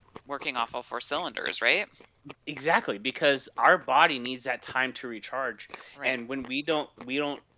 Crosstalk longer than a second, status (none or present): none